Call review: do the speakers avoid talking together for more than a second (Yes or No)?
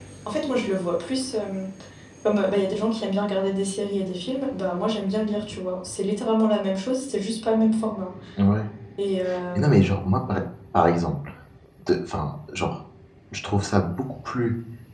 Yes